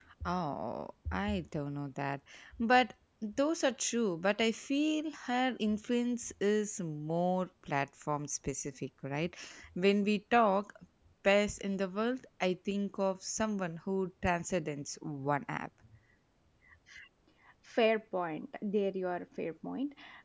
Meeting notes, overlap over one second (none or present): none